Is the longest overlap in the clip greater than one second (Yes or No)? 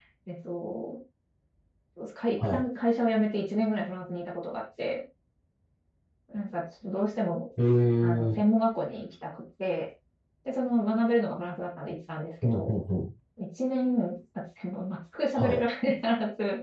No